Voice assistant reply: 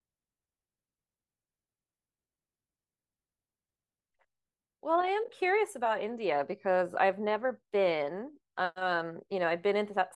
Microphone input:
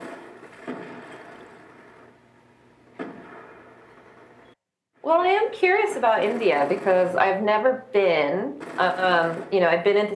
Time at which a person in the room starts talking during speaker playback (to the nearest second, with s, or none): none